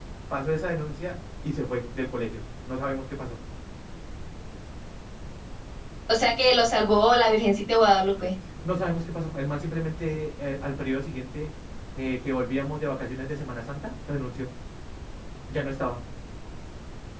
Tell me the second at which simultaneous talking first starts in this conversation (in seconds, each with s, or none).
none